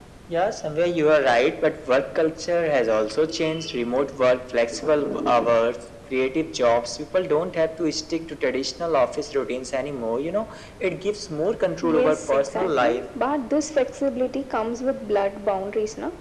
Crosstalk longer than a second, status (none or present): present